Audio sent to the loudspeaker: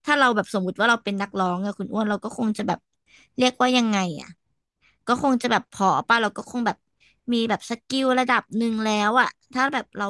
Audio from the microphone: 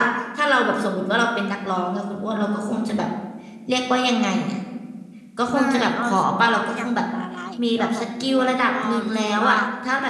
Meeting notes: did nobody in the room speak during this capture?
No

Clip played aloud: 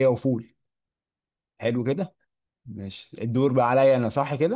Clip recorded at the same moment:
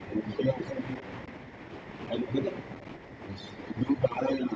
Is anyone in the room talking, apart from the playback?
No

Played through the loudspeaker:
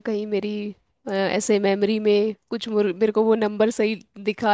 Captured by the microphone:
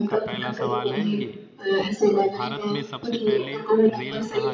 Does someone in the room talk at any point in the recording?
Yes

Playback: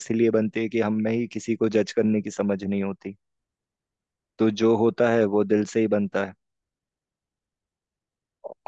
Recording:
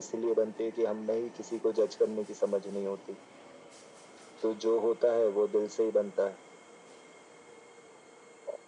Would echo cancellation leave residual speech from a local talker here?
No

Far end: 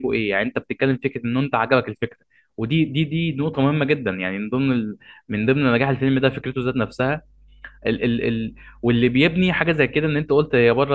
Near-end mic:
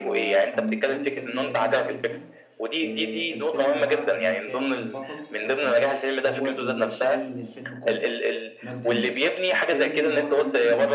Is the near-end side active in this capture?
Yes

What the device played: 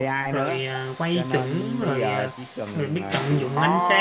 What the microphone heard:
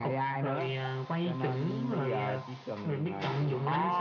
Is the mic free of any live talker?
Yes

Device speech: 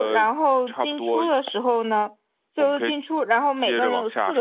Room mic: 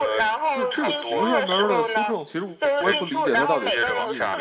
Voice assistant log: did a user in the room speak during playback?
Yes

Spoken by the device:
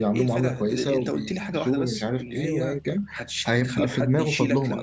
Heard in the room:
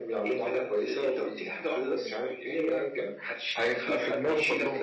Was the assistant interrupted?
No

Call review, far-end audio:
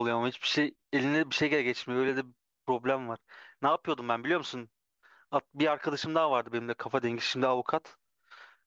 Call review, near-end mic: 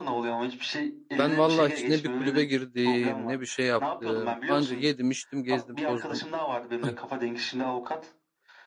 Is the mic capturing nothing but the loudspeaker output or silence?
No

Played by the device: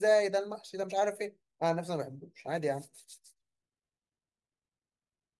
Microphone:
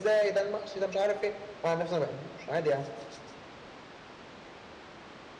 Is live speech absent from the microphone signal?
Yes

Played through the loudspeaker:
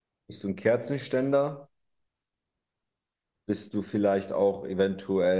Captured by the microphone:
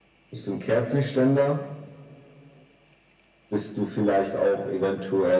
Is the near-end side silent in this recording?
Yes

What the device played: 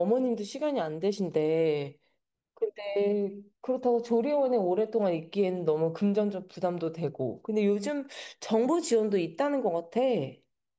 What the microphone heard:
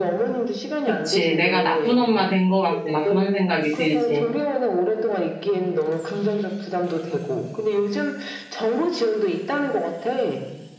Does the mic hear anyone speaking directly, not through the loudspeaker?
Yes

